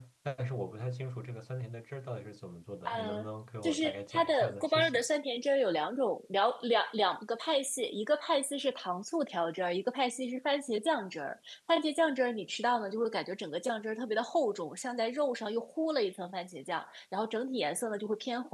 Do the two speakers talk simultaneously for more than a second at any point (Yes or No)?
Yes